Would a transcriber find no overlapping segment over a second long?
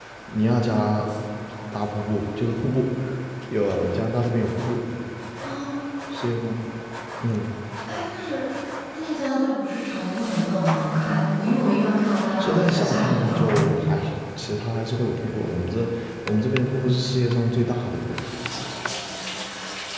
No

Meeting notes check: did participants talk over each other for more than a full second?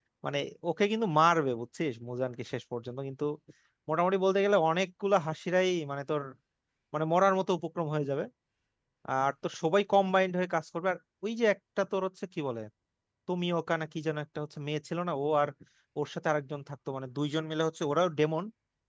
No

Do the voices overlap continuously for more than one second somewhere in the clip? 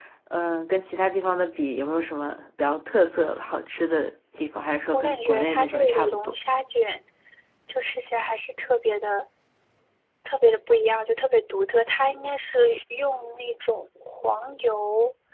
Yes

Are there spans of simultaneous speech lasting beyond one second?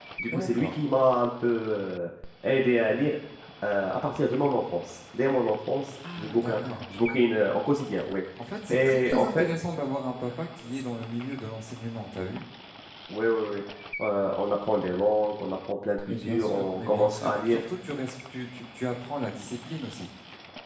Yes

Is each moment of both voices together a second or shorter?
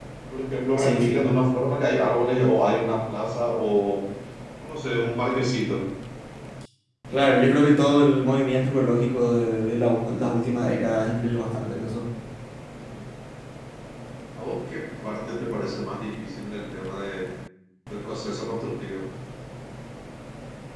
Yes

